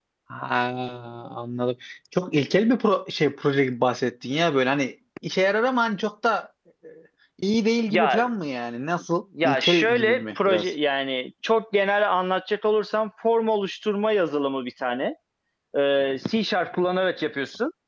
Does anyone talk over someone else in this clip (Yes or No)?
Yes